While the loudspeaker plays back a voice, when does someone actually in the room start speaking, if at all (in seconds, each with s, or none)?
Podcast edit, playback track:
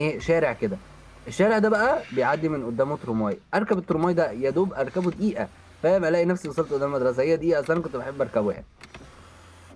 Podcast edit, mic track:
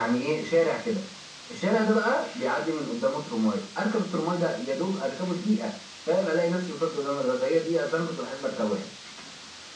none